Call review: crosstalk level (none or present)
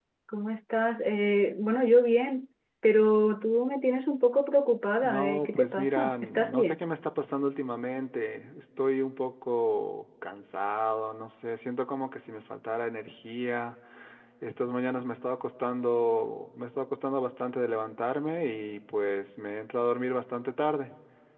present